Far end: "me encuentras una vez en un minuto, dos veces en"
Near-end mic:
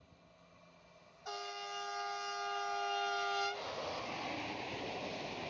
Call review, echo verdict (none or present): none